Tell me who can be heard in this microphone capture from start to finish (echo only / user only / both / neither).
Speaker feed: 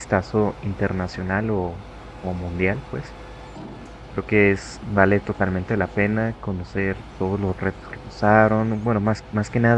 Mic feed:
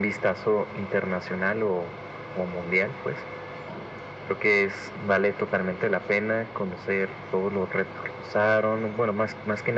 echo only